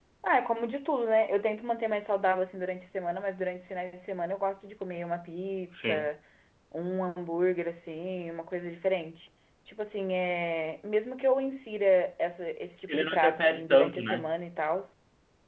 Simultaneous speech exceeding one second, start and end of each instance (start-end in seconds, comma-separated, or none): 12.9-14.3